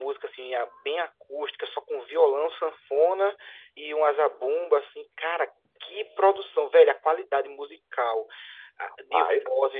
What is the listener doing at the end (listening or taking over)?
listening